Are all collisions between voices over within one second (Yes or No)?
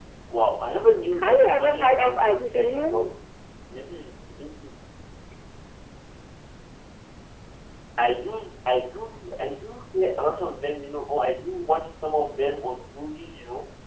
No